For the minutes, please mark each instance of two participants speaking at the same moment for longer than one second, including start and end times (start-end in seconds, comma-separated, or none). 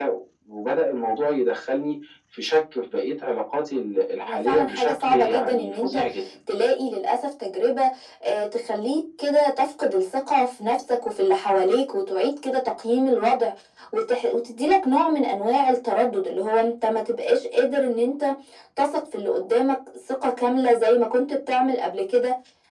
4.3-6.0